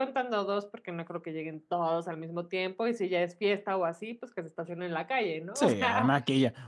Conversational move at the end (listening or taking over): taking over